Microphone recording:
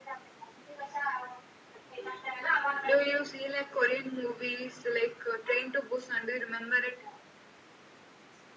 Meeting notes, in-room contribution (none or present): none